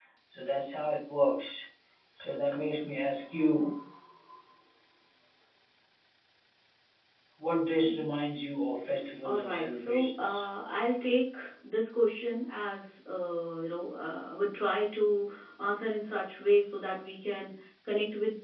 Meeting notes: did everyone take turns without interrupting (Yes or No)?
No